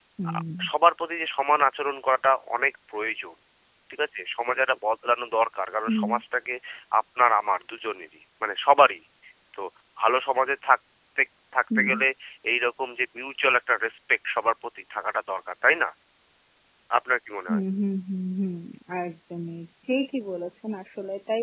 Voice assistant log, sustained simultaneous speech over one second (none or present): none